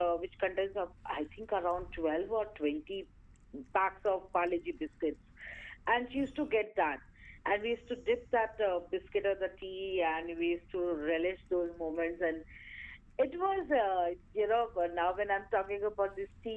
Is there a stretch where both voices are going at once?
No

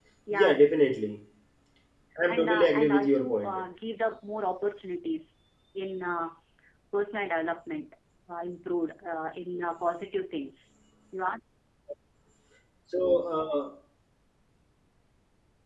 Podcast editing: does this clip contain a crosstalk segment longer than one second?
Yes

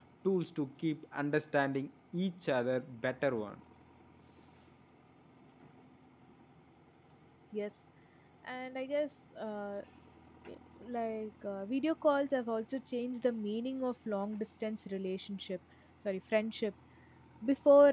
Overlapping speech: No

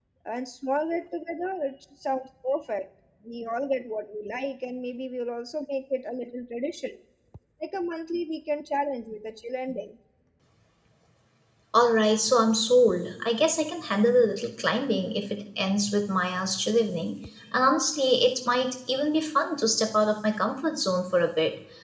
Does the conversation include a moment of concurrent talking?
No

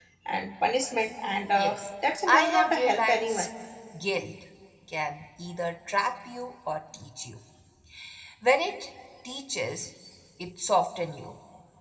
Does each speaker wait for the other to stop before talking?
No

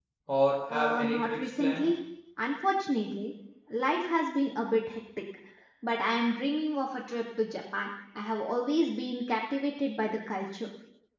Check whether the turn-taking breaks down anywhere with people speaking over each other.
Yes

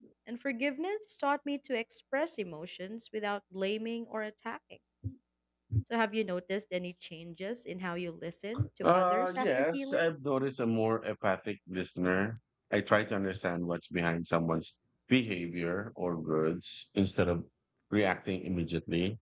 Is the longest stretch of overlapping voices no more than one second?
No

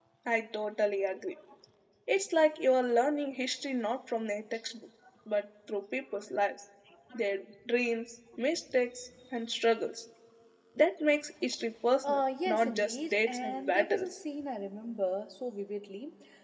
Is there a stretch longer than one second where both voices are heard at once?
Yes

